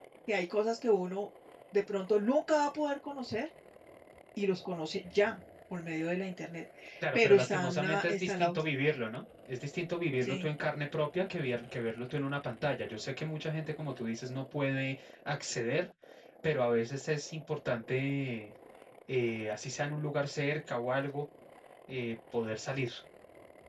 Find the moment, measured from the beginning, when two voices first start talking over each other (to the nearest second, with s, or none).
7 s